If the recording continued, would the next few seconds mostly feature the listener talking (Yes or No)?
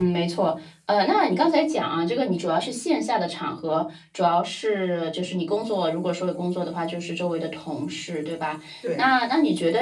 No